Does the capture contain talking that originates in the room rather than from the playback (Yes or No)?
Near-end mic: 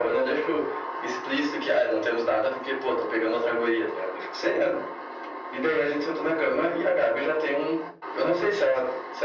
No